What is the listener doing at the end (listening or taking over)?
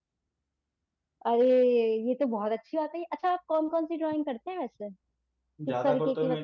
taking over